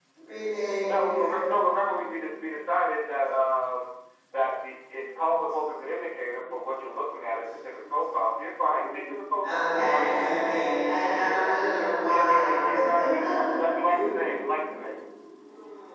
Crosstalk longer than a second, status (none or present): present